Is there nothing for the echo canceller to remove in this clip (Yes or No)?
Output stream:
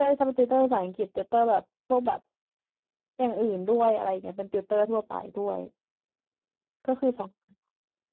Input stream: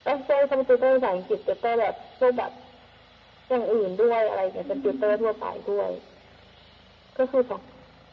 No